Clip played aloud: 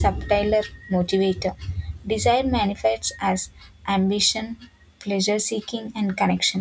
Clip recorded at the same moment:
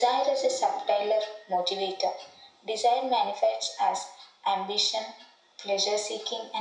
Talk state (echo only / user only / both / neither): echo only